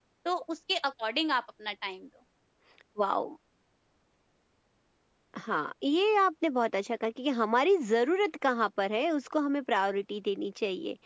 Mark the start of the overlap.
none

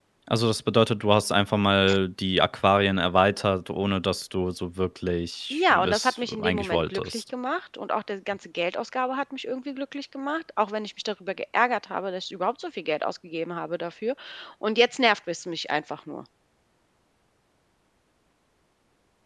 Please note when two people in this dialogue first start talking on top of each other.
5.5 s

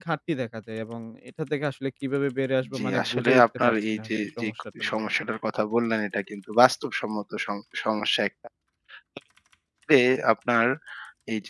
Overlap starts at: 2.6 s

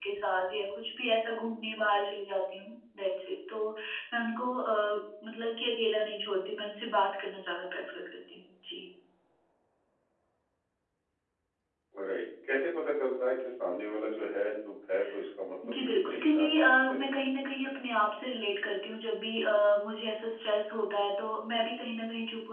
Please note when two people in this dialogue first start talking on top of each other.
15.6 s

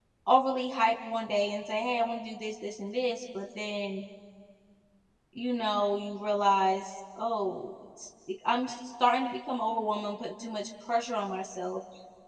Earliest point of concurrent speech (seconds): none

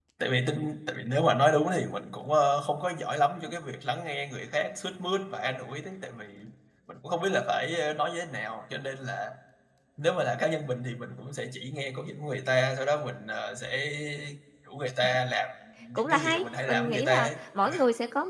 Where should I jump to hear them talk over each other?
15.9 s

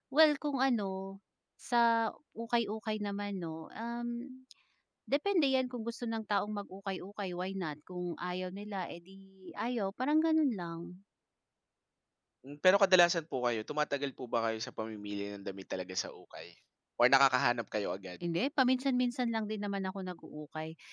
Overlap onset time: none

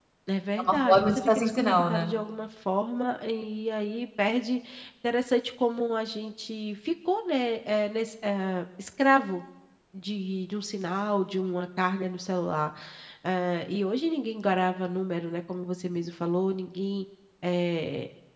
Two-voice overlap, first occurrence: 0.6 s

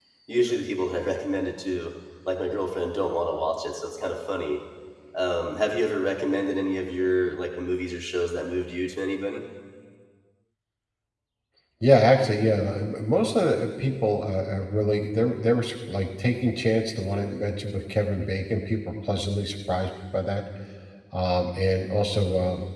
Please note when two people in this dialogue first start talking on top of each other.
none

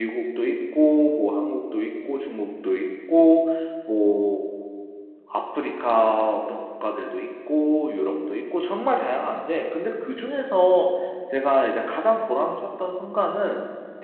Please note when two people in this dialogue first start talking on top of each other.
none

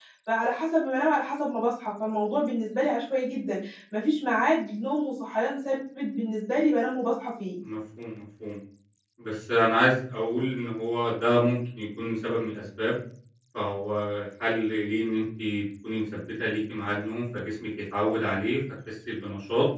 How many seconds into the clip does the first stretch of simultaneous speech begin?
none

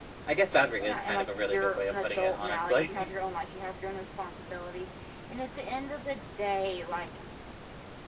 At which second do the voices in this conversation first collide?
0.8 s

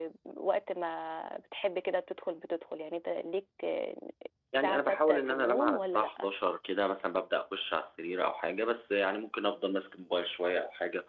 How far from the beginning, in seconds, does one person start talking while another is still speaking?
4.5 s

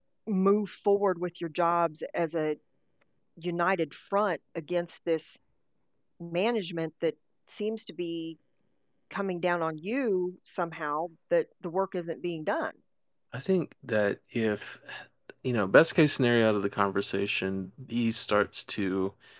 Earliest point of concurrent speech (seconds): none

